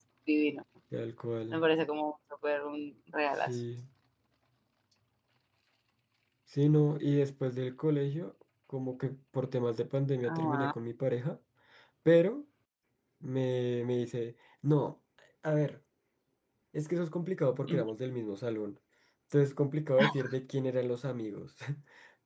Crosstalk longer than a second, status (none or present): none